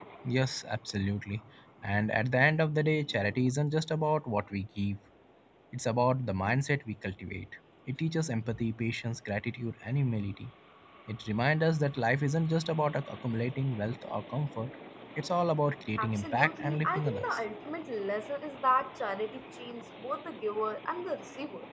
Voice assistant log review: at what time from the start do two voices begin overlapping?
16.0 s

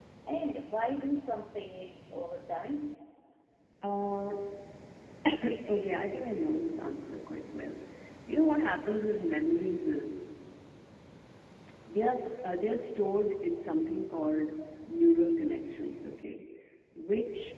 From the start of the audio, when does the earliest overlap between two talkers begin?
none

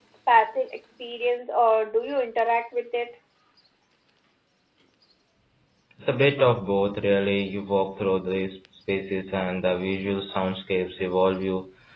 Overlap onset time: none

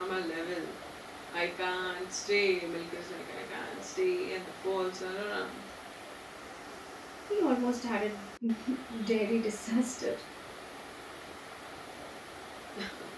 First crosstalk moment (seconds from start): none

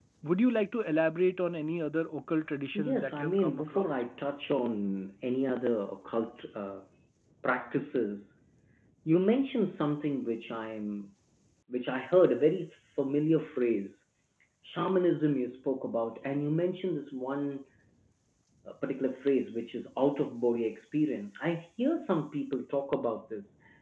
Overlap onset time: 2.8 s

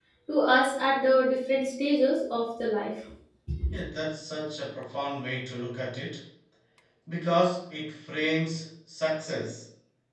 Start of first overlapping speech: none

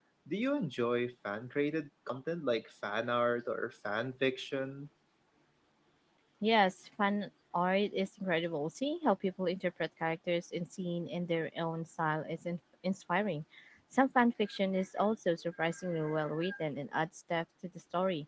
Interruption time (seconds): none

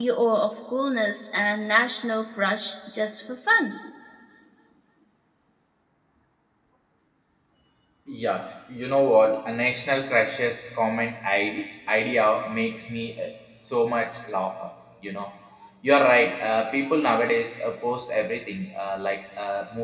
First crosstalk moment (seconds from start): none

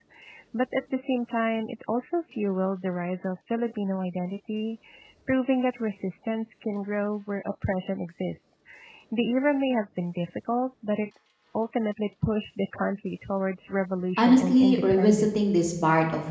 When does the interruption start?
14.2 s

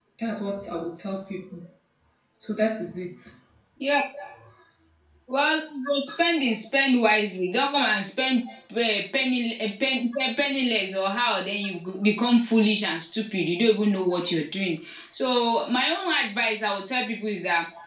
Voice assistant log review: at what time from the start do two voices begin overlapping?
none

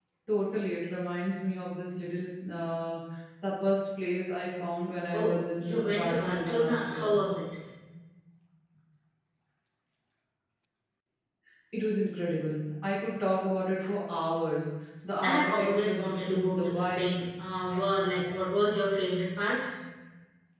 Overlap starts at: 5.1 s

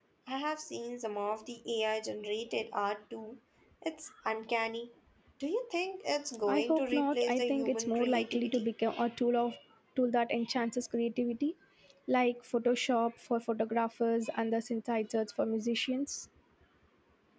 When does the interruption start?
6.5 s

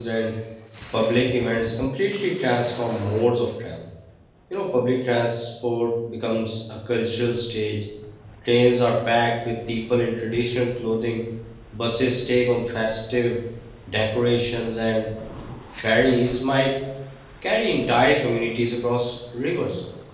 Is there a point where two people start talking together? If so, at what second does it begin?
none

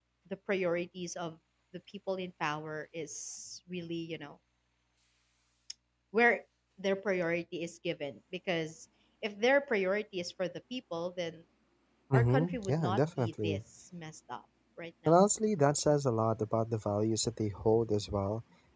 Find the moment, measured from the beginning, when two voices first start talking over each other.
12.1 s

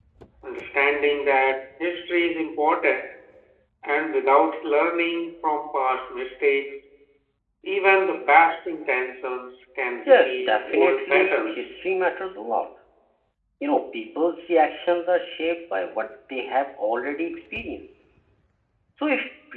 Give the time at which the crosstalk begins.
10.0 s

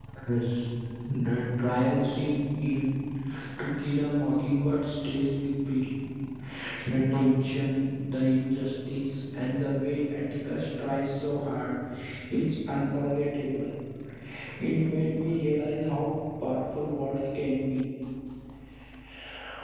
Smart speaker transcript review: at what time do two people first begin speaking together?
none

